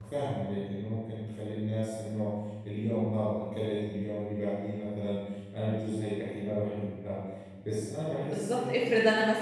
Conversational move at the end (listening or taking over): taking over